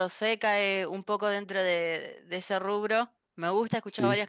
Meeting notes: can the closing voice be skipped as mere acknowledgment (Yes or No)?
Yes